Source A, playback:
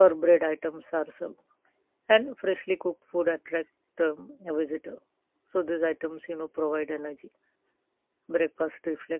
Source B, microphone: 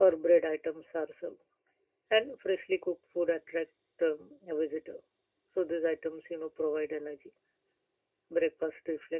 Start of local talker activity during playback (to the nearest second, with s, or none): none